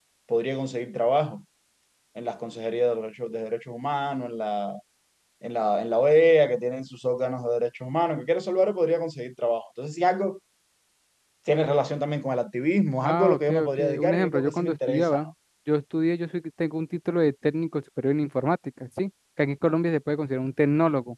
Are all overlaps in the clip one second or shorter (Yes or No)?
No